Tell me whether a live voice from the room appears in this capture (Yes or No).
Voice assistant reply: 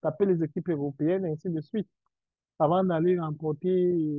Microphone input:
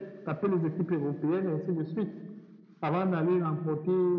No